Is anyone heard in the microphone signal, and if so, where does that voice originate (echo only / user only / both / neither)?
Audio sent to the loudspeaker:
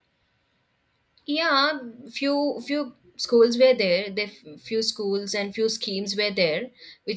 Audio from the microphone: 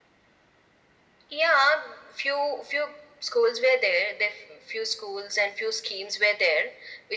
echo only